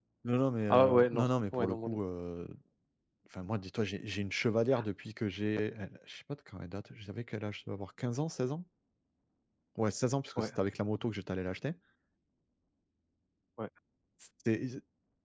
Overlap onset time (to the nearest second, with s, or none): 1 s